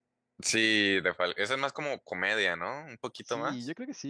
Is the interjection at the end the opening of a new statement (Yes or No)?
Yes